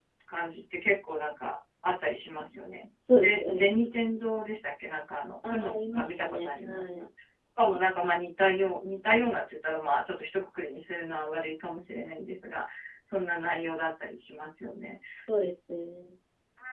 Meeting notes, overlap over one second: present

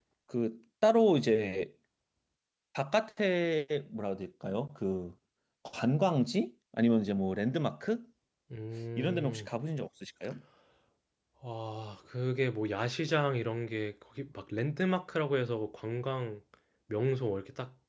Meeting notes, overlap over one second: none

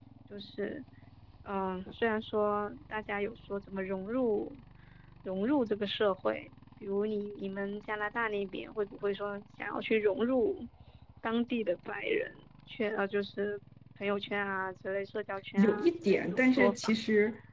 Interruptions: present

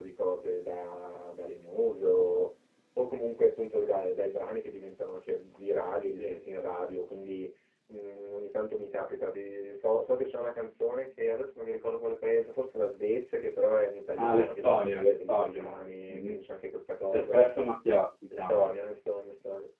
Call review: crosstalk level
present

